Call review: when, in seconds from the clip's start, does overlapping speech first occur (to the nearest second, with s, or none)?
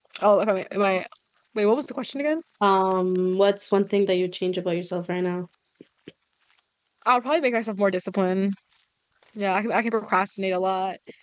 none